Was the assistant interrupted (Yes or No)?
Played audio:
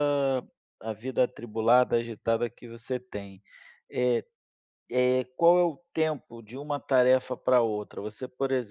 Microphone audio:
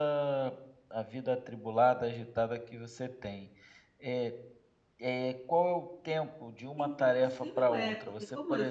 Yes